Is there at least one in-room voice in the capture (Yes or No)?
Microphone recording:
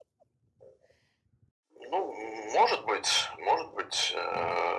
No